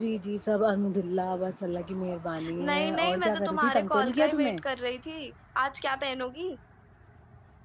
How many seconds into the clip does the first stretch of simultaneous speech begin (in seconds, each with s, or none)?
2.7 s